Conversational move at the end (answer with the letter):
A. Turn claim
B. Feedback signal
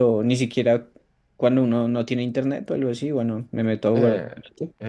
A